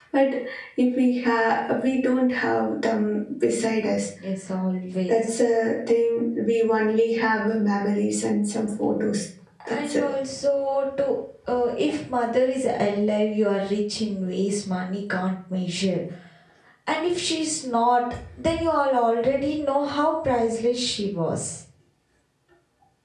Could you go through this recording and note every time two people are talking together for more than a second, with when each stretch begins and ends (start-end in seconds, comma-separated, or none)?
none